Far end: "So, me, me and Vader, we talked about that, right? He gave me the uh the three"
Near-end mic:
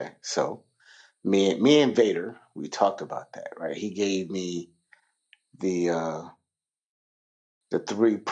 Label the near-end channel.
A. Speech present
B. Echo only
B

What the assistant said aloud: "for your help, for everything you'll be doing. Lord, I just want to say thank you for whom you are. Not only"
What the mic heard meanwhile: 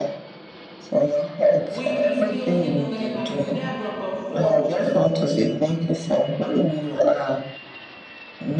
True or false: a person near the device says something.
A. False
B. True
B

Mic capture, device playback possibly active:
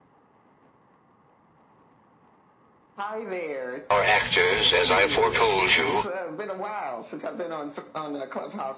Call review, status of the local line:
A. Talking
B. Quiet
A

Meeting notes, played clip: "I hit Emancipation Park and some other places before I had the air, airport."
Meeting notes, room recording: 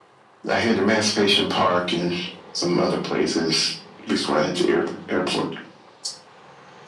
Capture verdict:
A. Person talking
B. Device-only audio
B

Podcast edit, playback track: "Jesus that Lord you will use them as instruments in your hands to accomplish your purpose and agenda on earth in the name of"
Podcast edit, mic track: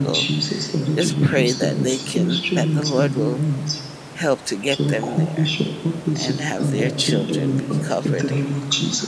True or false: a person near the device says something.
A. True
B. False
A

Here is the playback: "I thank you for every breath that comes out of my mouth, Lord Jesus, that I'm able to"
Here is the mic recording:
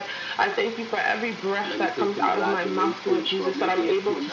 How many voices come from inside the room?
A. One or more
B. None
A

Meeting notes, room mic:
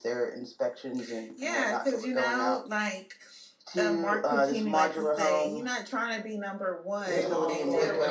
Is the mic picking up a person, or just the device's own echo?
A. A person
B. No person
A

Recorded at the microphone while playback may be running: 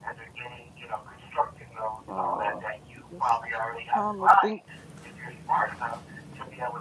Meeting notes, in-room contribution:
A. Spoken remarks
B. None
A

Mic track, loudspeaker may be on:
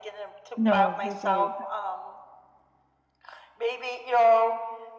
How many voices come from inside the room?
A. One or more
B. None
A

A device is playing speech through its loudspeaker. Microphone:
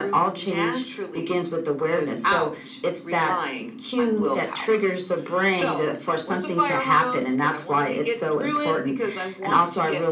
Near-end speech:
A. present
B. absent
B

